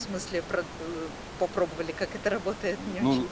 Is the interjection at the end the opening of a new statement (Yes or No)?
Yes